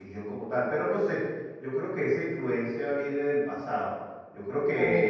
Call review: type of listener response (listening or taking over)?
listening